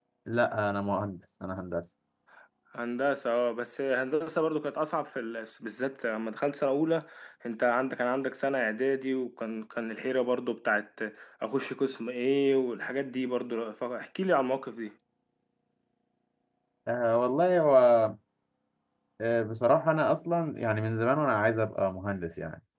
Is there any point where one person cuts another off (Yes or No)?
No